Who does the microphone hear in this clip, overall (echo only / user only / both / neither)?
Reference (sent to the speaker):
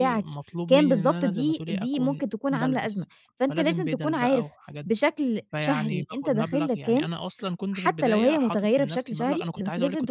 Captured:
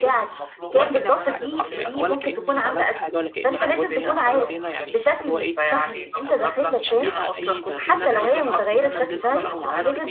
both